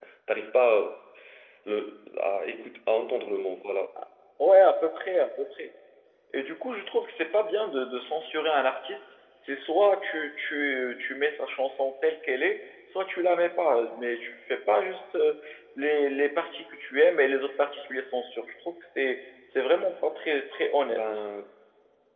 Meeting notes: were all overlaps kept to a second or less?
Yes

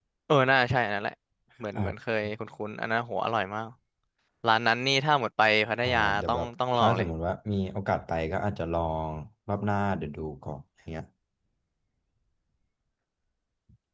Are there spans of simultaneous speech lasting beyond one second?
Yes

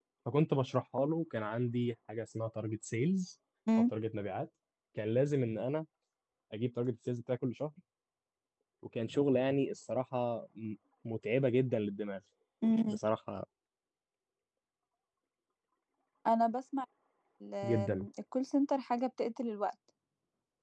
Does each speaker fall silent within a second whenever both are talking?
Yes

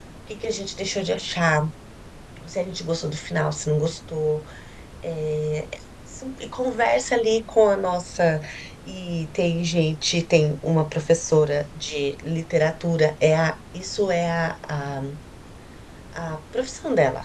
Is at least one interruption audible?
No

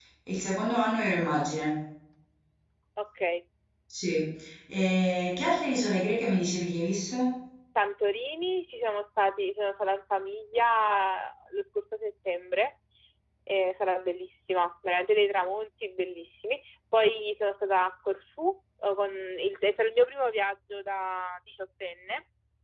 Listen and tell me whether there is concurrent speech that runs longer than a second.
No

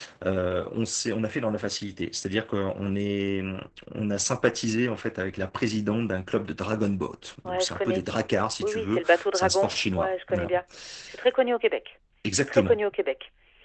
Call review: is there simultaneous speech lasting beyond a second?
Yes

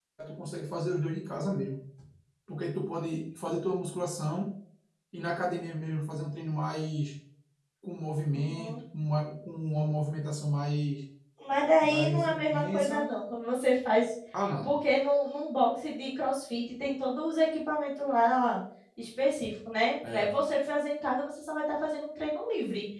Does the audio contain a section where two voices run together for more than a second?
Yes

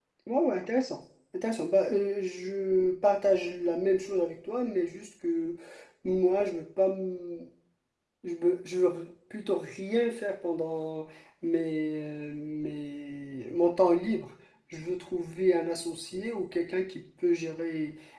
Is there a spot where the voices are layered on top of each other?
No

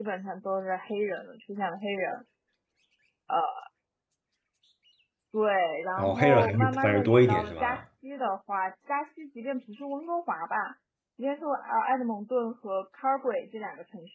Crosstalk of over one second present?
Yes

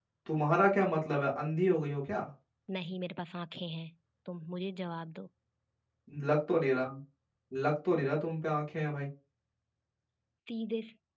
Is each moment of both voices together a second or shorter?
Yes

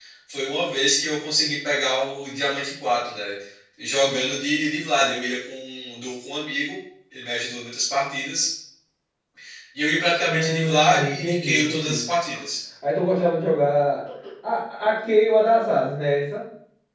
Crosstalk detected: Yes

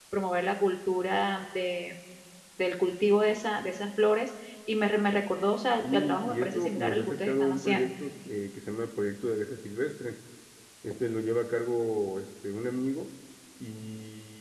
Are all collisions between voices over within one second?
No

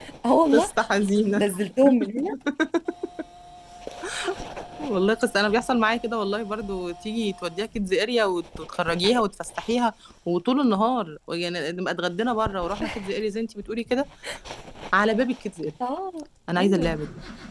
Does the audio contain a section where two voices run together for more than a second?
No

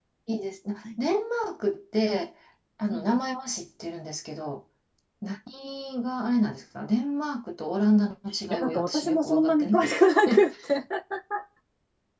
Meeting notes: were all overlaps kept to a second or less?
No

